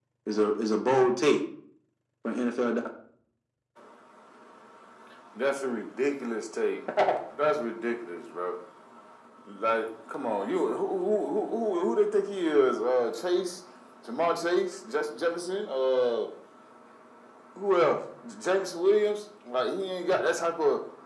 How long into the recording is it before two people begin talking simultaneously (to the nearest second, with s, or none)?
none